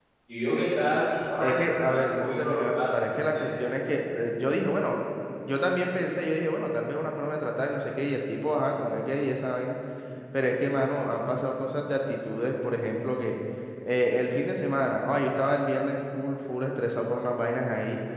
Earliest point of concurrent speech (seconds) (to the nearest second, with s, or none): 1 s